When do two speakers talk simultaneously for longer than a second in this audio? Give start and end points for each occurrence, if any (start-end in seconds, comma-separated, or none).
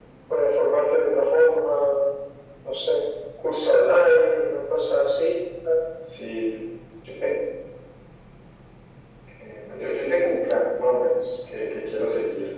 none